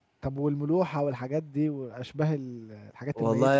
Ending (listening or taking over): taking over